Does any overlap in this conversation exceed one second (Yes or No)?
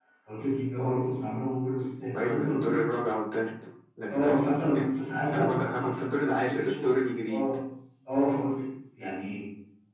Yes